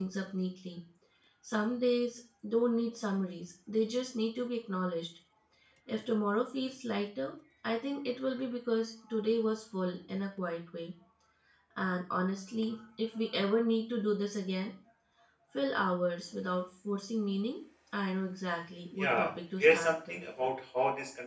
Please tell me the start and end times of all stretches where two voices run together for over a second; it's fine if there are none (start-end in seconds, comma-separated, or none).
19.0-20.2